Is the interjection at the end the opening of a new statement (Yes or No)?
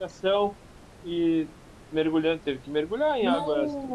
No